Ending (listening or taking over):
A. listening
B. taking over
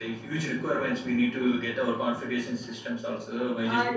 A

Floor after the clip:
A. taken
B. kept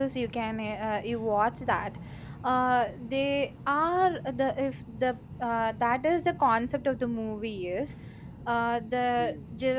B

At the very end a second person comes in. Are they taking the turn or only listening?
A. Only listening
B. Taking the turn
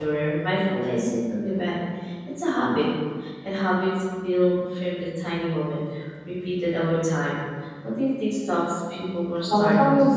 B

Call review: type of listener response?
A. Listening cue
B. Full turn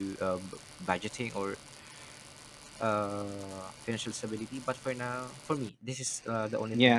B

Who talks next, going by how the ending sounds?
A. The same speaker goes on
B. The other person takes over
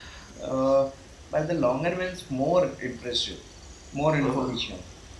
A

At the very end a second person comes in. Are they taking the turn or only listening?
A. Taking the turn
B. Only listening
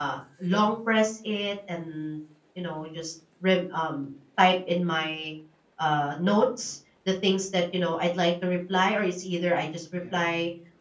B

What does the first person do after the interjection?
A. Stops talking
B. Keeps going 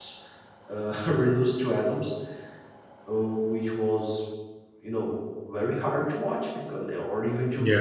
B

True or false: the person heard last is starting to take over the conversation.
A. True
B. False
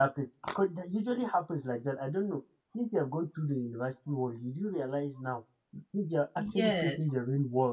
B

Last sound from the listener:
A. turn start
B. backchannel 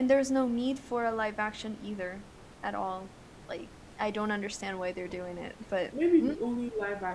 A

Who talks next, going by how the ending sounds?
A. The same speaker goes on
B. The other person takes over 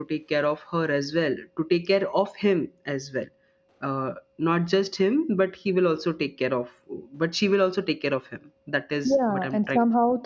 B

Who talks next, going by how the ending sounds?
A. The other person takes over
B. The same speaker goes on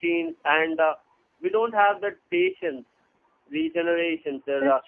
B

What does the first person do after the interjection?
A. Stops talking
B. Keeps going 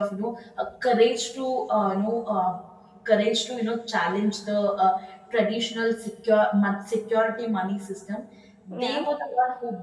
B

